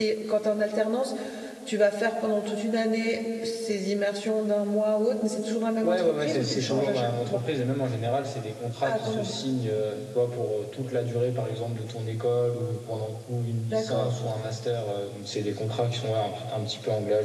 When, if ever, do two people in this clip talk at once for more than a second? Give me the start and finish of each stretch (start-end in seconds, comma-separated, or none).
5.8-7.4